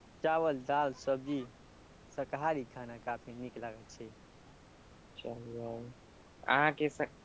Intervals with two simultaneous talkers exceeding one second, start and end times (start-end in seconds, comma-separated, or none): none